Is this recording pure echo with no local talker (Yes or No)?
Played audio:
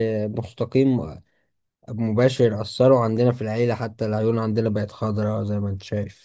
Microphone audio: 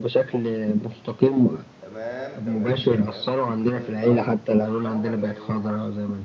No